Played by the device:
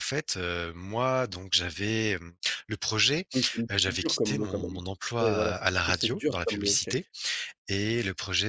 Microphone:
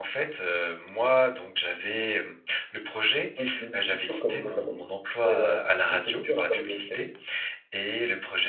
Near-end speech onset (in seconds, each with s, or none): none